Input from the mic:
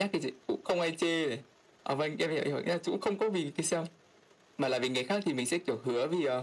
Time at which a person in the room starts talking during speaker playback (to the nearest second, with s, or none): none